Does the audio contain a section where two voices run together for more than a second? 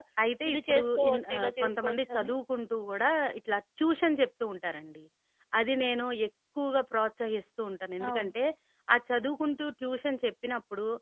Yes, from 0.5 s

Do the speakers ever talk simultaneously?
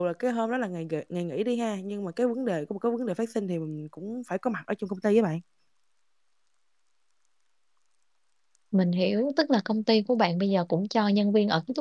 No

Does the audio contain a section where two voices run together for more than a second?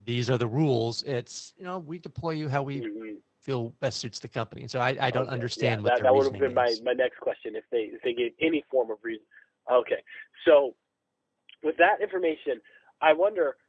Yes, from 5.1 s

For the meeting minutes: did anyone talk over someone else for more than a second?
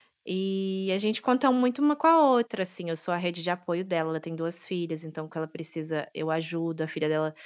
No

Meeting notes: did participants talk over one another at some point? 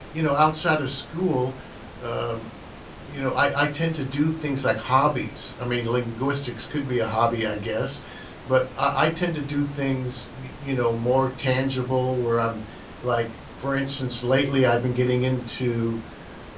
No

